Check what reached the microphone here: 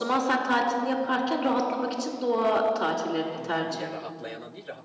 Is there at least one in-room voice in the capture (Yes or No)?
Yes